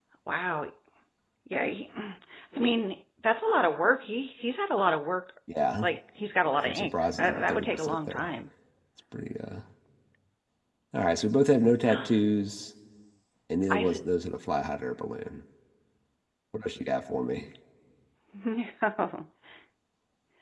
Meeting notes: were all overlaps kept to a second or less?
No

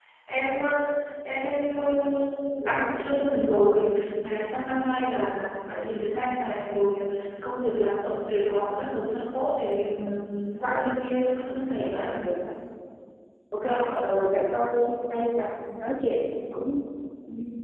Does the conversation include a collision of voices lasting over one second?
No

